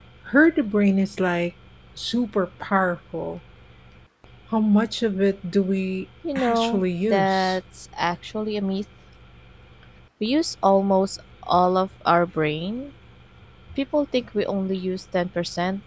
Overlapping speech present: Yes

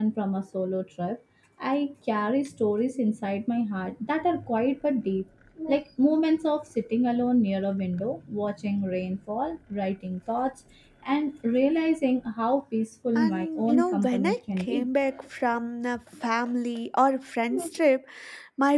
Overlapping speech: Yes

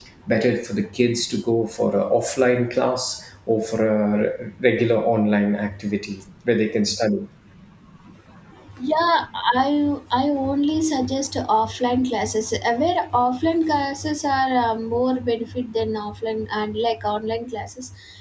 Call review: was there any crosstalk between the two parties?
No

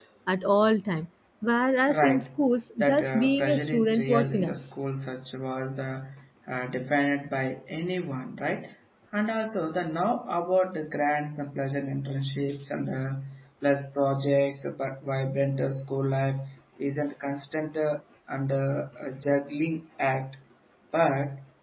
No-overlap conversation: No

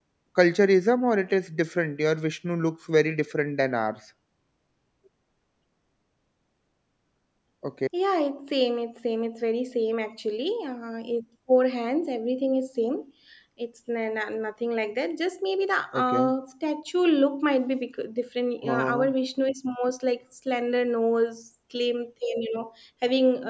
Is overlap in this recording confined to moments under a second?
Yes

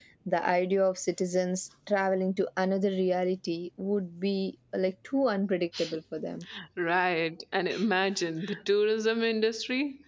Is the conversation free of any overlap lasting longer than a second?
Yes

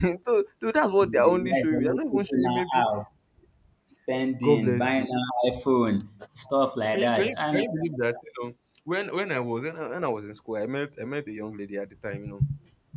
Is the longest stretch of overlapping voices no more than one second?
No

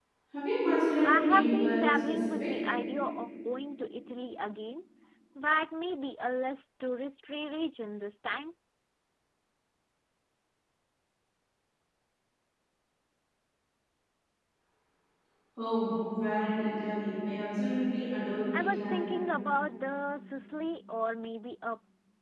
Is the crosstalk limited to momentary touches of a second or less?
No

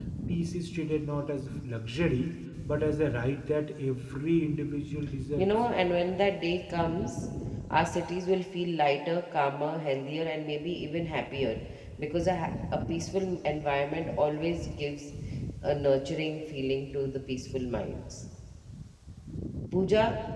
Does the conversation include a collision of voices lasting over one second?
No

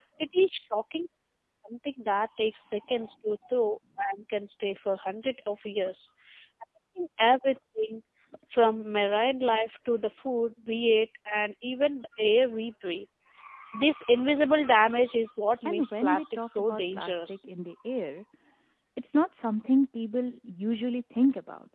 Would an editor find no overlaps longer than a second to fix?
No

